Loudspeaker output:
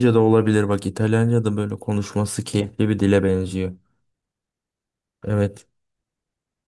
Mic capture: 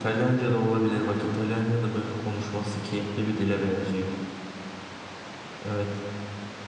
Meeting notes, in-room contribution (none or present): none